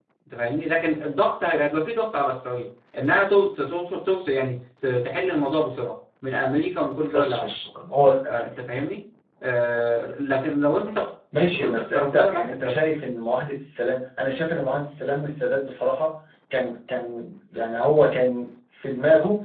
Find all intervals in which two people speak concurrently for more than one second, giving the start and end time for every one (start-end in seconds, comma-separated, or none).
11.5-12.9